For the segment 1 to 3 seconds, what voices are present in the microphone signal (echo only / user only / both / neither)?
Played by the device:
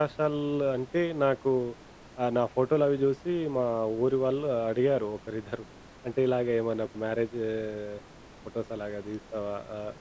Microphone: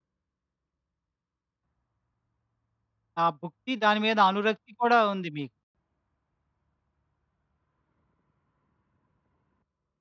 neither